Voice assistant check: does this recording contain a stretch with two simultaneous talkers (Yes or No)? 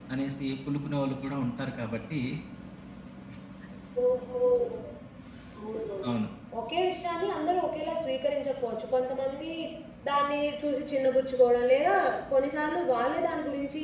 No